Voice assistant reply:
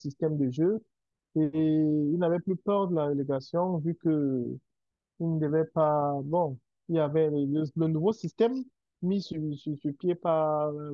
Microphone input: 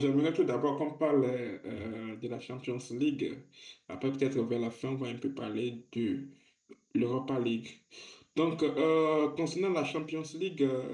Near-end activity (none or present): present